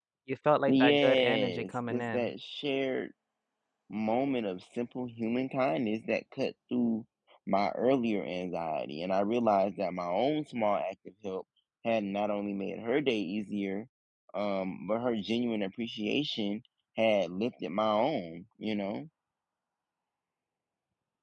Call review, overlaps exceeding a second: present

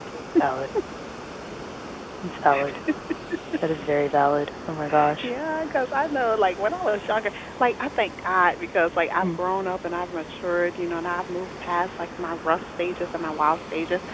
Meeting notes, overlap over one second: none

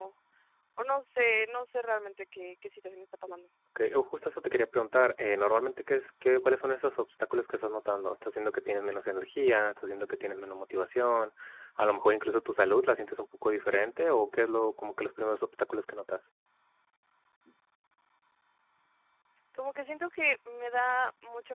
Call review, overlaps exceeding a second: none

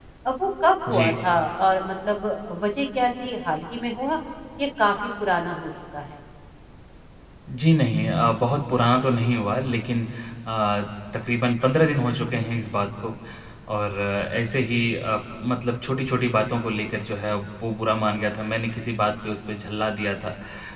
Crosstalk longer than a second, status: none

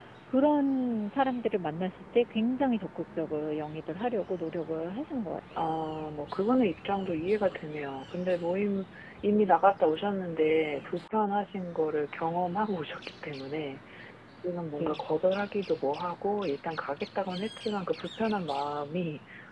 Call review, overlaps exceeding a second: none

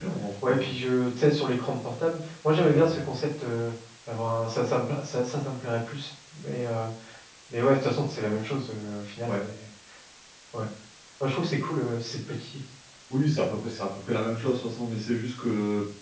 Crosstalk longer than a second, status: none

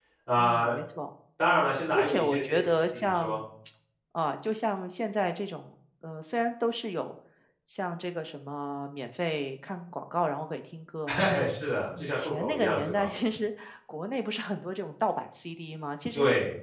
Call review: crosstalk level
present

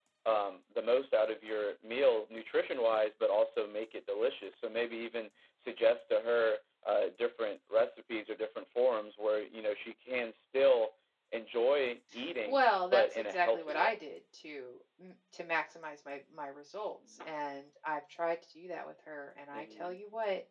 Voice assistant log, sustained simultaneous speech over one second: present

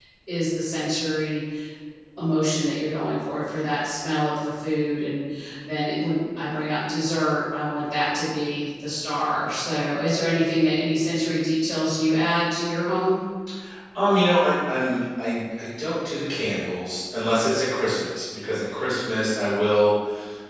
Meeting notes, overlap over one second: none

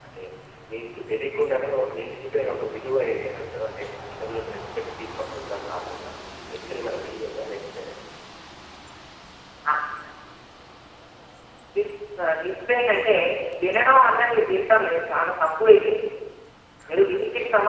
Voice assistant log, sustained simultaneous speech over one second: none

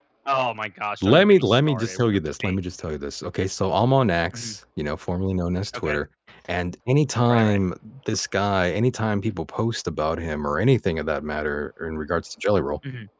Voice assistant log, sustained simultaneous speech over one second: present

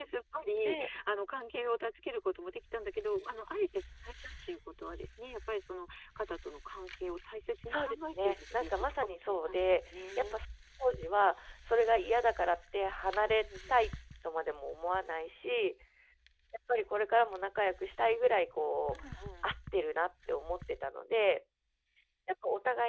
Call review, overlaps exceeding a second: present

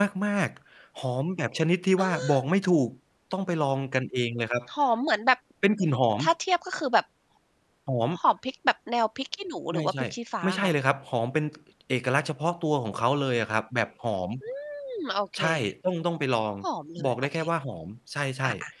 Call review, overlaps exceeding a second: none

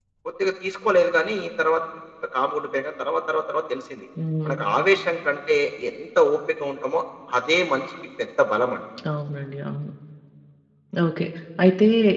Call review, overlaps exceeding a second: none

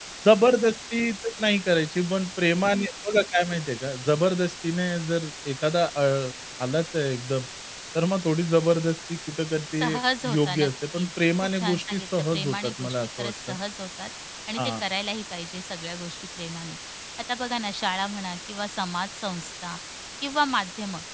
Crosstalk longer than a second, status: present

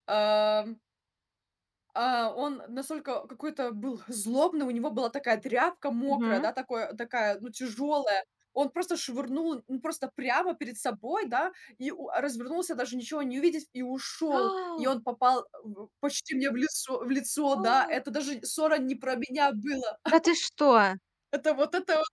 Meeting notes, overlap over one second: none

